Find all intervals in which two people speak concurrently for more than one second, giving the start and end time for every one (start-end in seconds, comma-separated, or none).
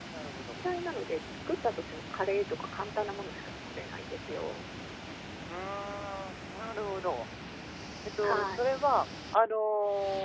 none